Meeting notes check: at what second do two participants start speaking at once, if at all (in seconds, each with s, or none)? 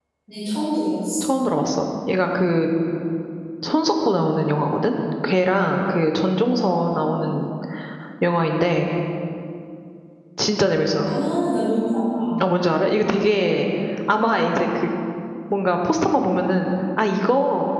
none